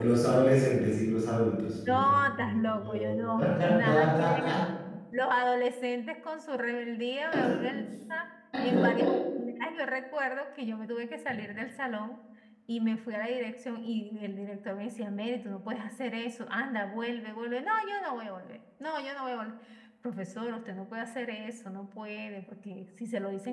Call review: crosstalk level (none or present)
present